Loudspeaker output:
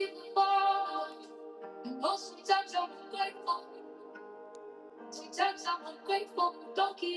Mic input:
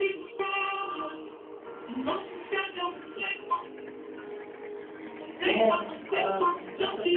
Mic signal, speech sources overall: both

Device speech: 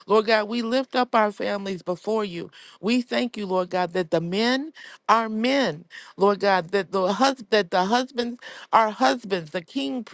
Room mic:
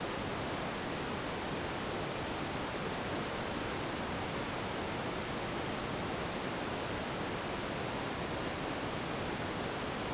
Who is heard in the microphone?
neither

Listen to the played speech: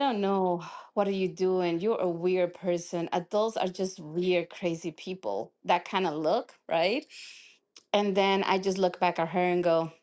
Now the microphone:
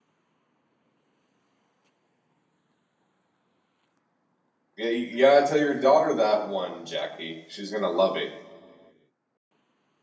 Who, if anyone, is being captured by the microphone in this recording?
user only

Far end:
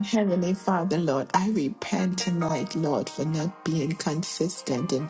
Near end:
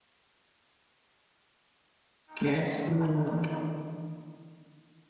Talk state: user only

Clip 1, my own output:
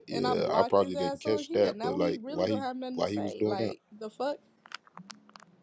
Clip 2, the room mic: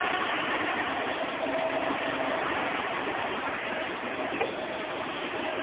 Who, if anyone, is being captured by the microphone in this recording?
neither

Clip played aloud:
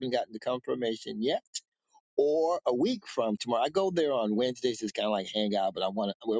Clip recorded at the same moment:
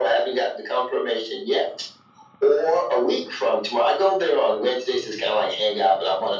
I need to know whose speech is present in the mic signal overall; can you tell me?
echo only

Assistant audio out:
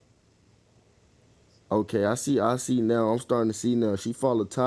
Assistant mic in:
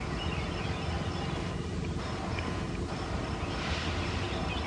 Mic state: neither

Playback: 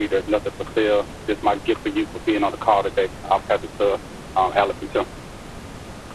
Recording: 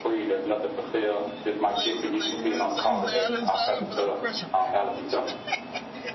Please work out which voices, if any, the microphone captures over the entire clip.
both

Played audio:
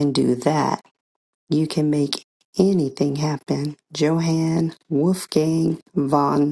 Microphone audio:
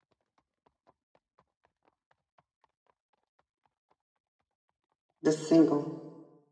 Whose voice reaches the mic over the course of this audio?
user only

